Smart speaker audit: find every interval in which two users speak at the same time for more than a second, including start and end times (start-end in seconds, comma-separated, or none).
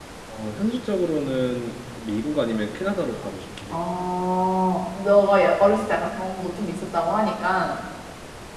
none